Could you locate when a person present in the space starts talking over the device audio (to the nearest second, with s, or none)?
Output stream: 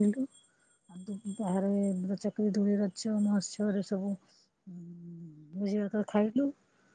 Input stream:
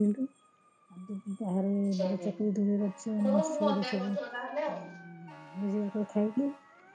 2 s